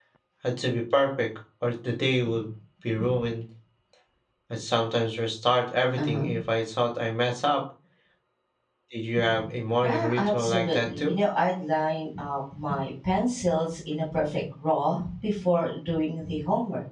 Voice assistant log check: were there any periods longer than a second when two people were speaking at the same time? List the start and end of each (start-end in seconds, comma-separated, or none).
9.8-11.1